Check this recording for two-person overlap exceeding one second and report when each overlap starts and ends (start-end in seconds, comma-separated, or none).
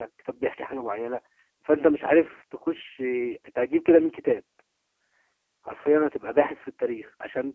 none